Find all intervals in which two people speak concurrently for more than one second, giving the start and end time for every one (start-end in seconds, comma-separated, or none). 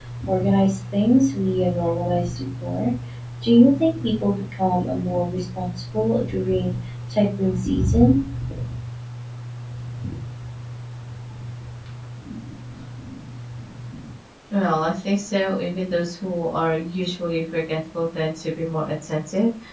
none